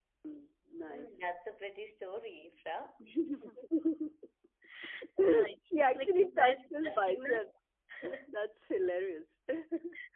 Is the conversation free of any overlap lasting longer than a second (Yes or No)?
No